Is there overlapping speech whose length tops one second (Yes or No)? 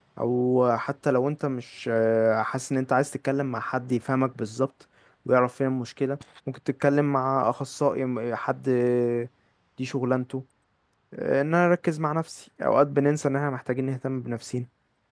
No